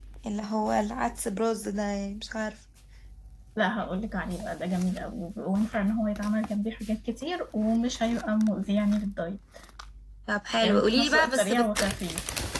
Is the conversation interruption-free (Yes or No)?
No